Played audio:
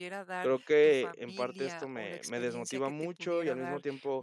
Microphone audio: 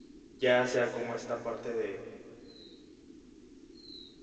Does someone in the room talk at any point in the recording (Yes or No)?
Yes